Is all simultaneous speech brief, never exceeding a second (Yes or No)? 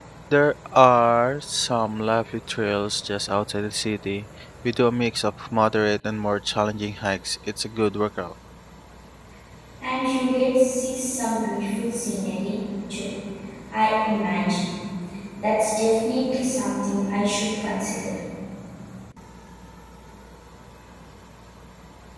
Yes